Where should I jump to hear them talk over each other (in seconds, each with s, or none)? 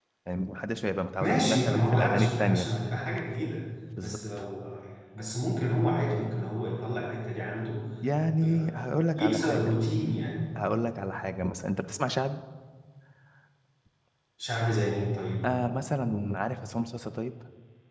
1.2 s